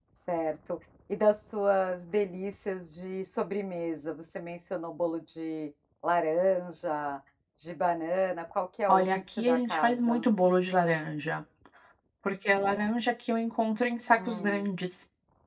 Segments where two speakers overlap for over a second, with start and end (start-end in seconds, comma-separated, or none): 8.9-10.2